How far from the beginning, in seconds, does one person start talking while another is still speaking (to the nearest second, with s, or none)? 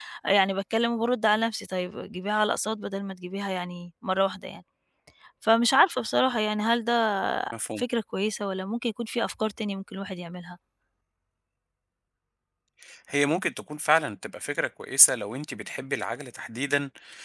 none